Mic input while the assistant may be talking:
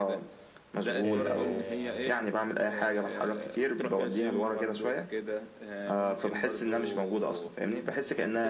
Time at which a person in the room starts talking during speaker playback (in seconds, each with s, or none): 1.0 s